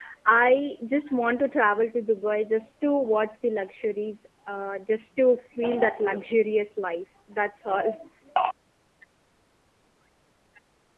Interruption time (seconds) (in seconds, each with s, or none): none